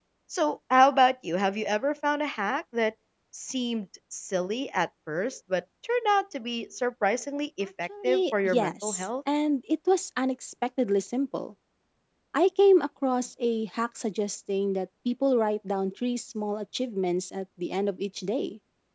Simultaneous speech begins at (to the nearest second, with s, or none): 8 s